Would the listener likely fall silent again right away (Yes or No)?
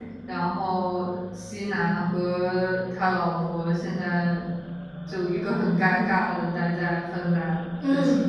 No